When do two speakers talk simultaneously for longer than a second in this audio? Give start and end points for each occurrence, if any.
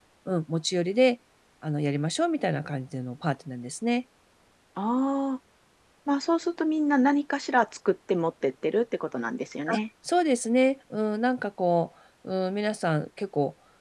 none

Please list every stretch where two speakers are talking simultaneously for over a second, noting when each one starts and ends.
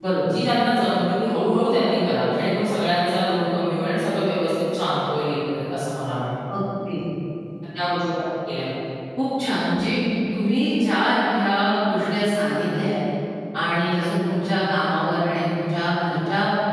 none

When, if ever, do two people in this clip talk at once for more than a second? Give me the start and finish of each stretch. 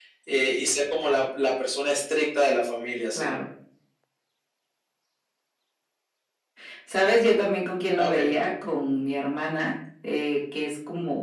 none

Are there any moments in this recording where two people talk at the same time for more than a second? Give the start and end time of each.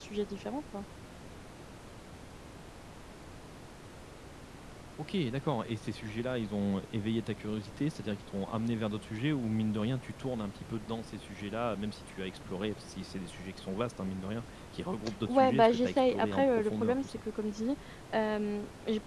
15.3-17.2

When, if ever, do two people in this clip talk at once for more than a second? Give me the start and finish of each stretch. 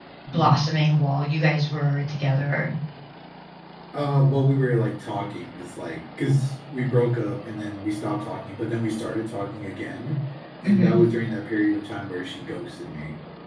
none

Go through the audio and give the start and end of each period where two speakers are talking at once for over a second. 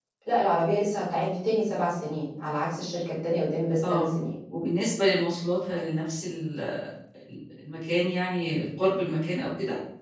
none

